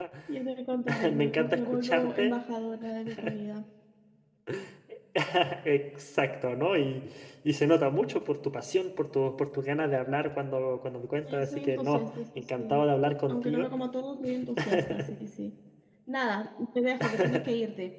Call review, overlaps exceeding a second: present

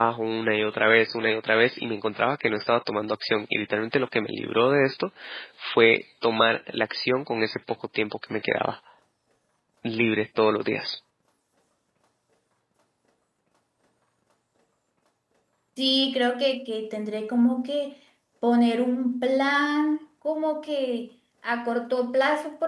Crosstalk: none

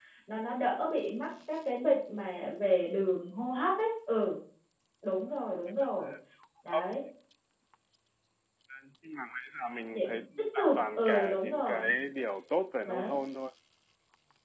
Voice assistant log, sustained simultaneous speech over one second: present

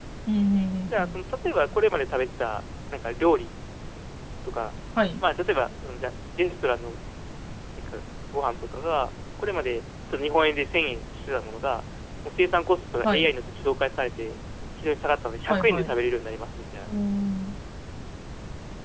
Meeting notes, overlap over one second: none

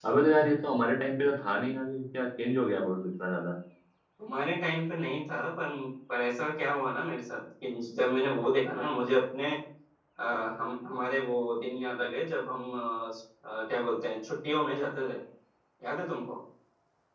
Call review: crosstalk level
none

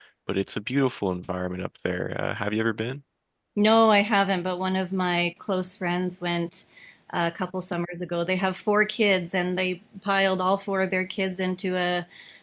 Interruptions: none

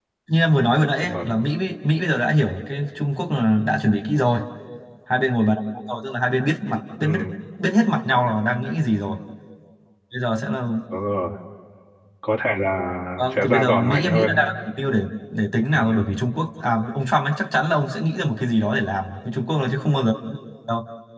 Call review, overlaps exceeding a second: present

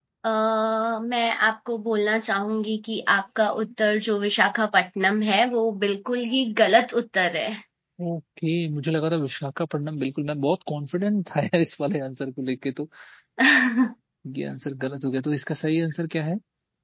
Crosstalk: none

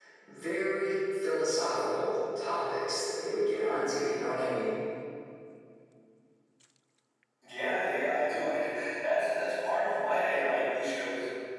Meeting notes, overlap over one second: none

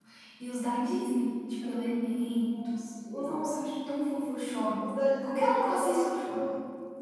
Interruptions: present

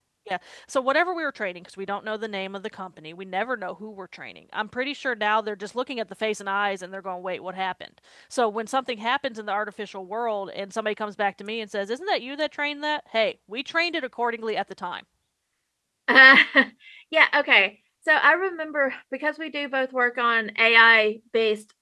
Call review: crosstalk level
none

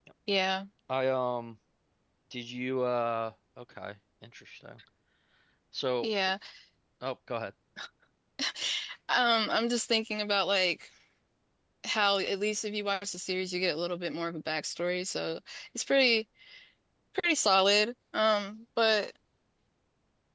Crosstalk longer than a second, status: none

